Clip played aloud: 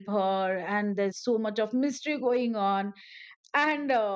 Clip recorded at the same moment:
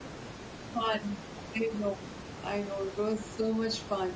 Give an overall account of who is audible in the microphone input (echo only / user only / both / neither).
user only